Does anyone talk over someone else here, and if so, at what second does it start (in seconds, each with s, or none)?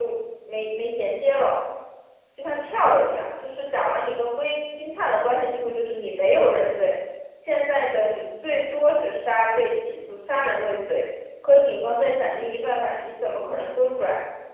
none